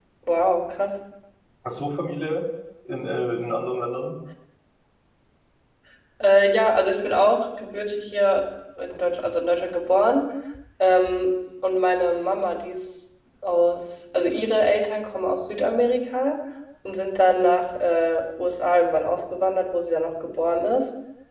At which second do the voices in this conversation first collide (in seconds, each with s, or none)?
none